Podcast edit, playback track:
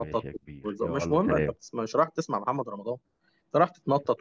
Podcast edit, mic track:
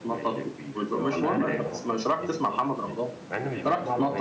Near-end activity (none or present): present